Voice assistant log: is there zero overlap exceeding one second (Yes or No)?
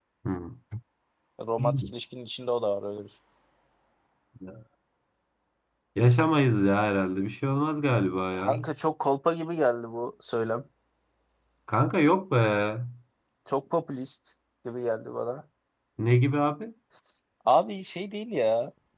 Yes